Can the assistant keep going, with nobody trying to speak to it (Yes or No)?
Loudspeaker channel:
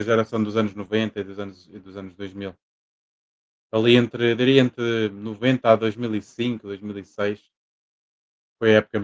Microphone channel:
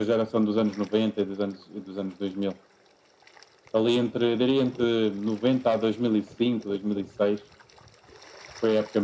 Yes